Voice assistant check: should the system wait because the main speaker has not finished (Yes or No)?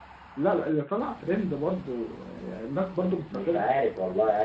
No